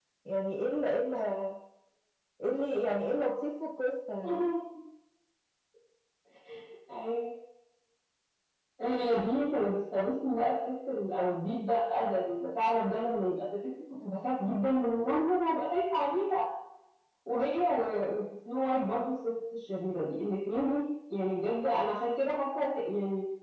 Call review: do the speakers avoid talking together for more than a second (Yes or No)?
Yes